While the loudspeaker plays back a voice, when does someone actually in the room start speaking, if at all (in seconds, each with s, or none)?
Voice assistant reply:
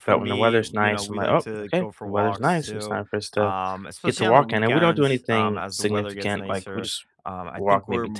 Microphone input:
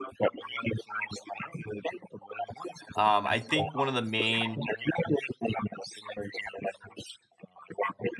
2.9 s